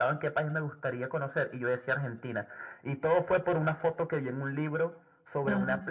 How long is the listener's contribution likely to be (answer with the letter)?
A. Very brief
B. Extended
A